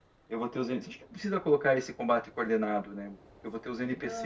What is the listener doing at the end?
taking over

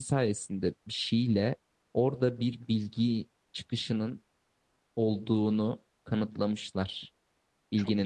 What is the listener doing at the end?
listening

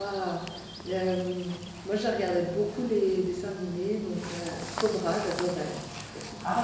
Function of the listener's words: taking over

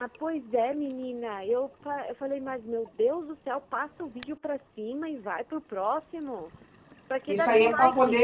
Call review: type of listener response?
taking over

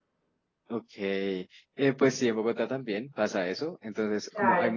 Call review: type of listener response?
listening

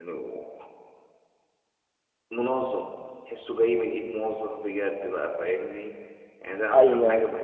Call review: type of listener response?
listening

